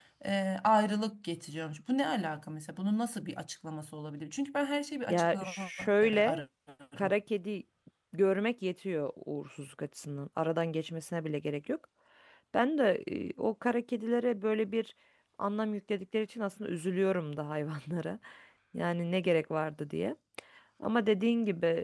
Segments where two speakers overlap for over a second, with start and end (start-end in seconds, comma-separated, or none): 5.1-6.4